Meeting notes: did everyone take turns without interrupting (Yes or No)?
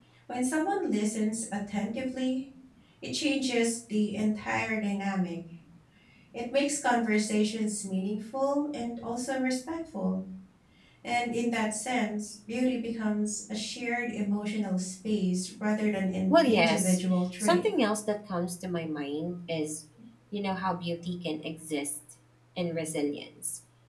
No